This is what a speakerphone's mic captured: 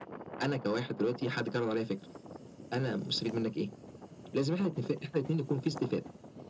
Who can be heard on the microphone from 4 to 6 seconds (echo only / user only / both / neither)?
echo only